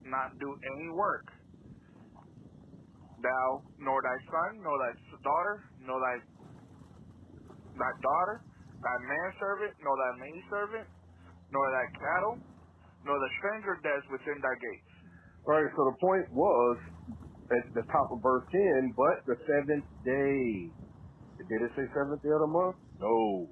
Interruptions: none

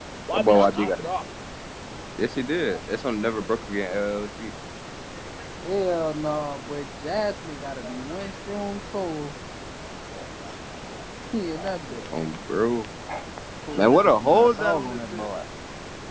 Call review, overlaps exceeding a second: present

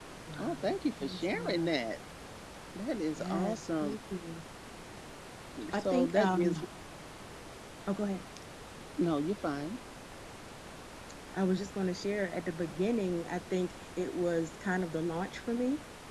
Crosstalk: present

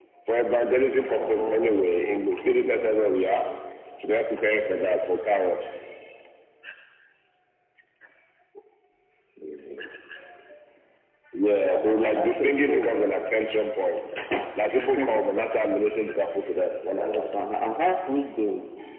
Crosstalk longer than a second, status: present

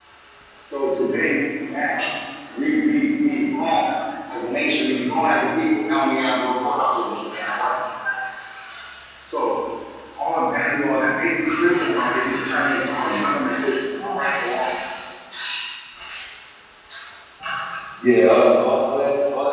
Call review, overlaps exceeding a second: none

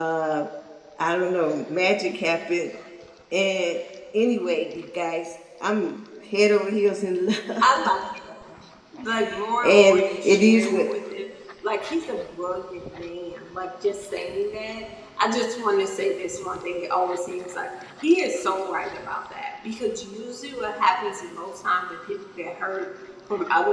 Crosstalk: present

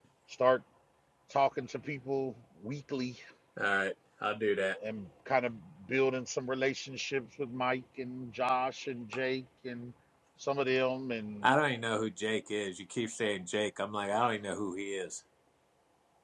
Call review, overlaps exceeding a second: none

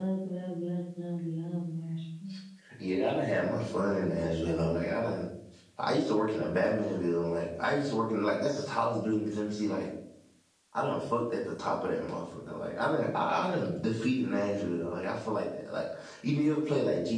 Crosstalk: none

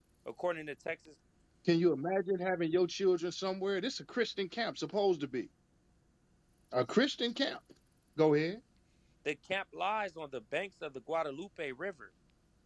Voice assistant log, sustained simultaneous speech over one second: none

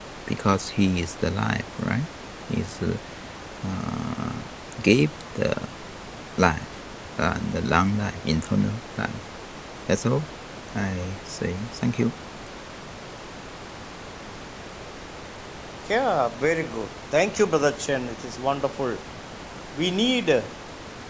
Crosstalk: none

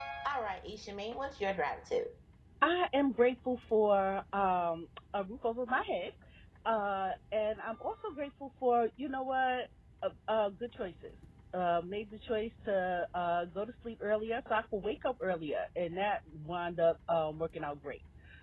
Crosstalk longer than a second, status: none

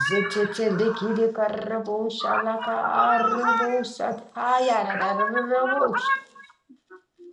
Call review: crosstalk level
present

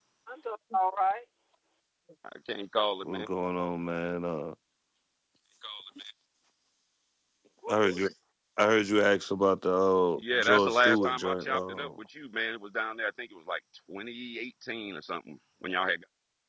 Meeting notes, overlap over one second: present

